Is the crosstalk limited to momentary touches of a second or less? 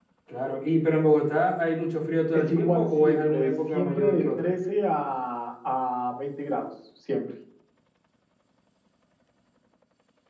No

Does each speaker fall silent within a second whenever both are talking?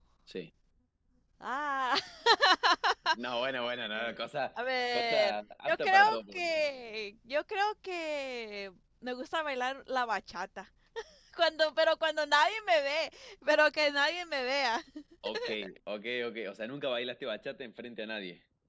No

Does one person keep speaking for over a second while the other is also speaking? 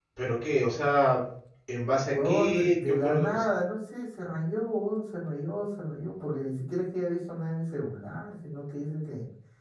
Yes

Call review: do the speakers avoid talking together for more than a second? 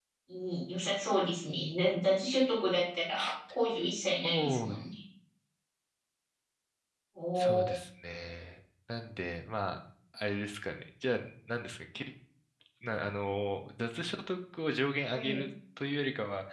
Yes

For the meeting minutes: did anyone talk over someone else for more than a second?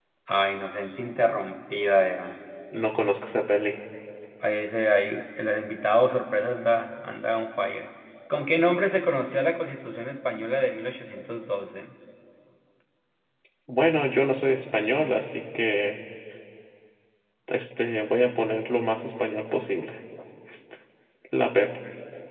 No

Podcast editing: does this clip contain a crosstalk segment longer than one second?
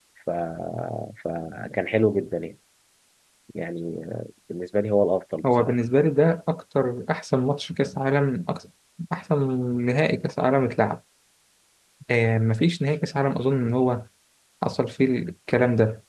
No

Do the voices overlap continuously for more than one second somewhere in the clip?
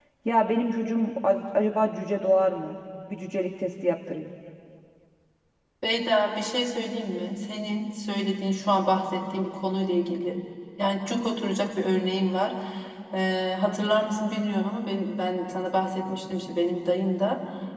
No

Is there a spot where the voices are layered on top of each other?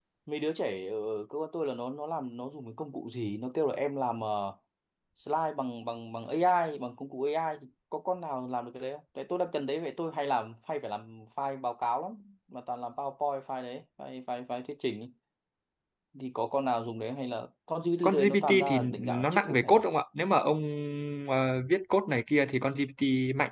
Yes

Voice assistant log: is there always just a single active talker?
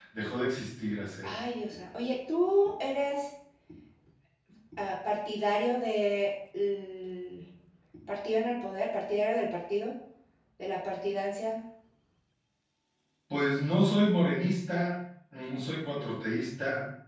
Yes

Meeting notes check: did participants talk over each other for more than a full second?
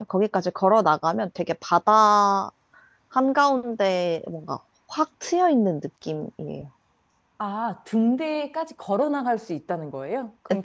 No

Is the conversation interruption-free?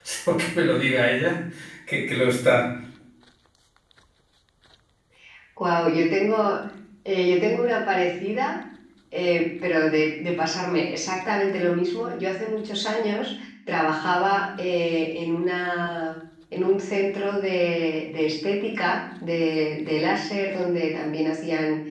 Yes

